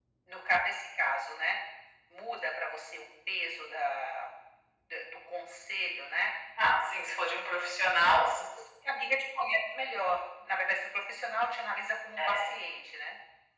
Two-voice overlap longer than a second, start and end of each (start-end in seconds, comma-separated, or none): none